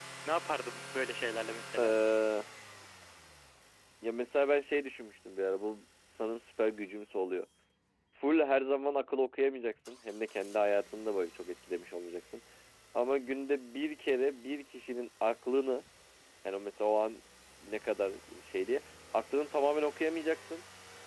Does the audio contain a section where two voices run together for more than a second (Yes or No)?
No